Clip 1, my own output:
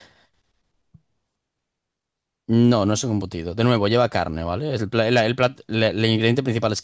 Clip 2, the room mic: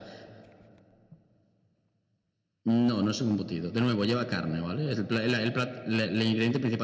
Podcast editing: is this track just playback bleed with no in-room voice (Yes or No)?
Yes